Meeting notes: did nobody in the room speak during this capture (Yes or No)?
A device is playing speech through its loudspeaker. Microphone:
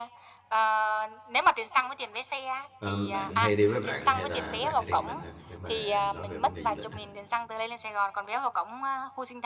No